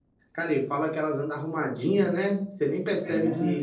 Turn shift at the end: Yes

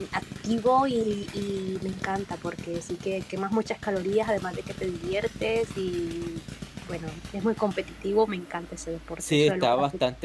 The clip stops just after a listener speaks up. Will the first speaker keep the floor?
No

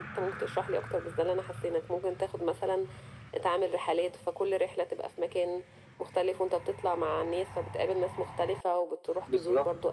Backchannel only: Yes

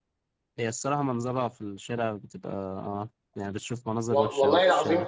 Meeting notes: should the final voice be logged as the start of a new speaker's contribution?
Yes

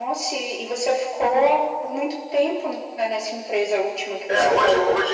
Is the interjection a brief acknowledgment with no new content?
No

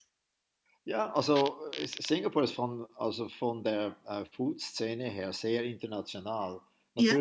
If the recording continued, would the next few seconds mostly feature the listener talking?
No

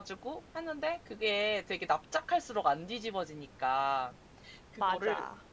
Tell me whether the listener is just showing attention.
Yes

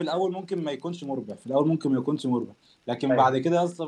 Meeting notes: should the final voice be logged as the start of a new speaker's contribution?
No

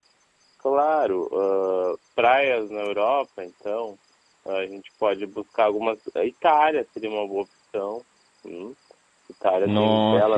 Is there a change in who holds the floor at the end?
Yes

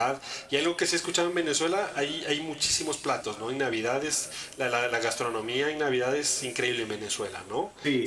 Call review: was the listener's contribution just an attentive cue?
No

